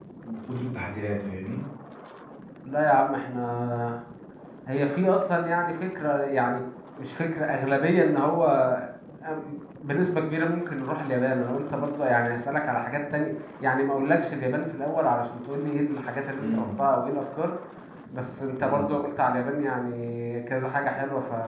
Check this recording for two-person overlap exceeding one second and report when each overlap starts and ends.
none

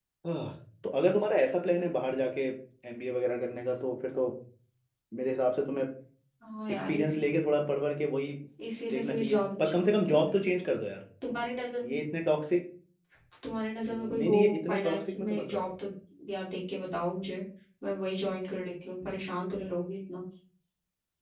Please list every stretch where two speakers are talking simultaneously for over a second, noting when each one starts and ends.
8.9-10.3, 13.9-15.6

